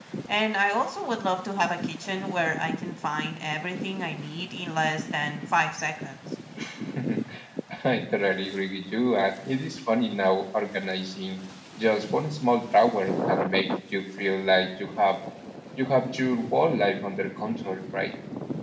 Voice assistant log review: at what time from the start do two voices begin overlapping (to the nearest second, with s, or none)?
none